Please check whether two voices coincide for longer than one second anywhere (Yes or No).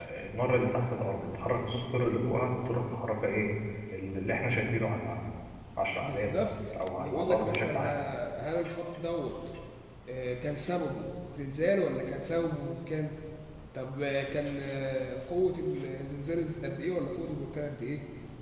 Yes